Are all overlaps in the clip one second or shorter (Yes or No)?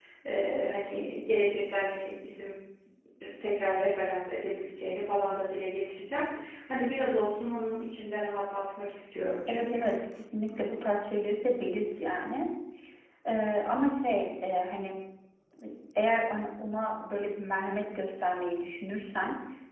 Yes